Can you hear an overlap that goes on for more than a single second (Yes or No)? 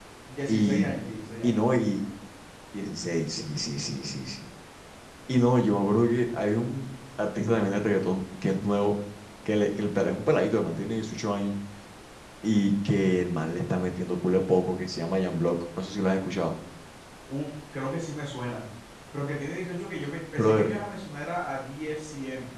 No